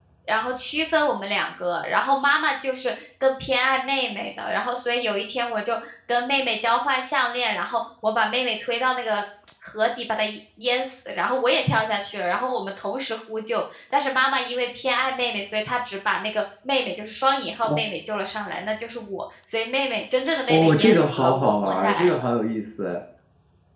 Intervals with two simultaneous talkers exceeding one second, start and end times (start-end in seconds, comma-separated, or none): 20.5-22.1